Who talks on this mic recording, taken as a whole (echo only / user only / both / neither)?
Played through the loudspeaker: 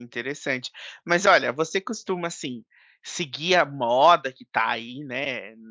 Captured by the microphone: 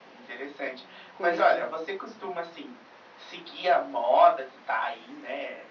both